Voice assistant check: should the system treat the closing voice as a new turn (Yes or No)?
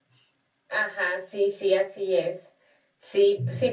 No